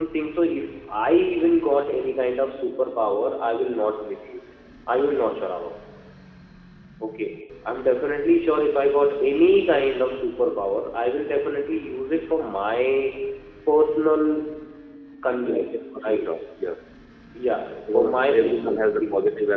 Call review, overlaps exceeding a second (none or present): present